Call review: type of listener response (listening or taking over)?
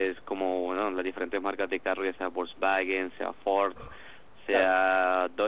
listening